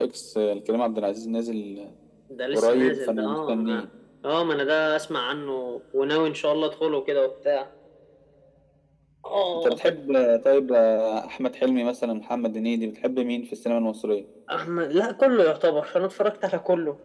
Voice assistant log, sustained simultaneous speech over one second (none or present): present